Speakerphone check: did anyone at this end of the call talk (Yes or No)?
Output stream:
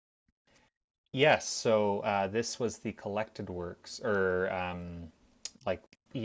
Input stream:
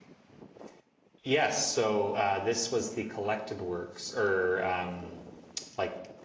No